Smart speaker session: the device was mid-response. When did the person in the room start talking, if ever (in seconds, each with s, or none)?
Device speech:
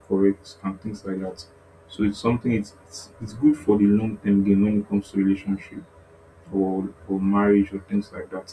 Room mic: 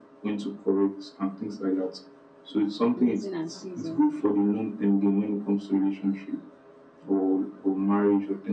3.0 s